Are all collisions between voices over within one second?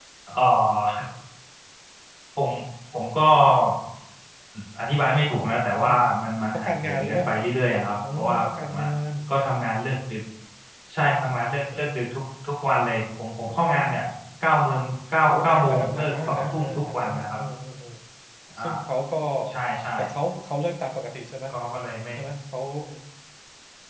No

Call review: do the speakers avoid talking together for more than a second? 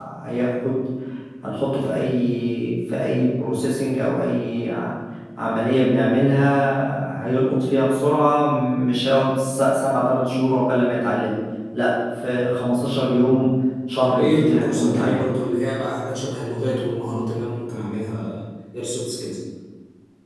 No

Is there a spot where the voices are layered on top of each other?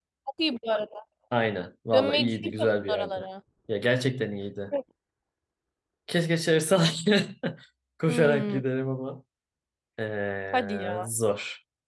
Yes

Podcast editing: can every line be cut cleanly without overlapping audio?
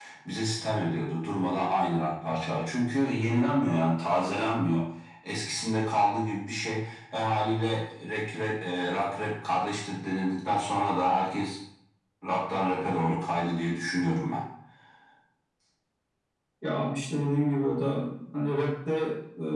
Yes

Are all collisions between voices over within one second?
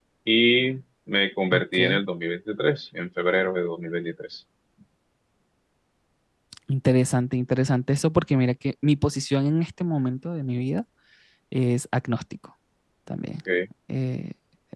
Yes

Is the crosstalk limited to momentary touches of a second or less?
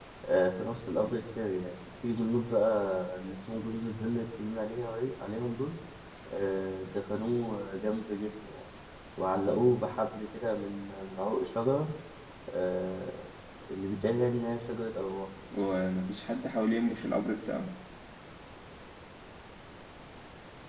Yes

